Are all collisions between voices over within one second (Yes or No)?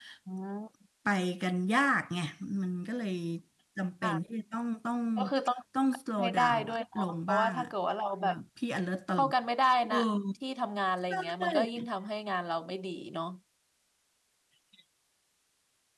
No